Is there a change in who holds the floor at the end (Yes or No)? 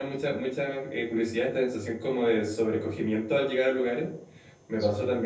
No